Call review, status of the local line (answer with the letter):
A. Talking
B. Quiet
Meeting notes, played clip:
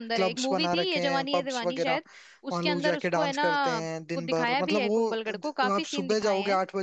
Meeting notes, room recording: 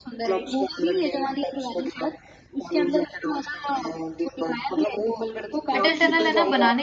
A